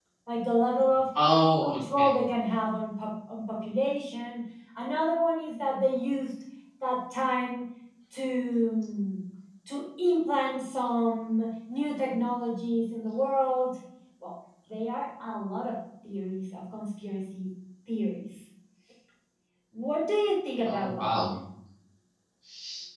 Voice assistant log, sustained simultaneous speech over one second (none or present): none